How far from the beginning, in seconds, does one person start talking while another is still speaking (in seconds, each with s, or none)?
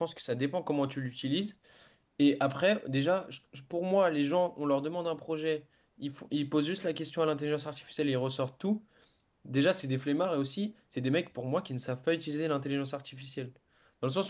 none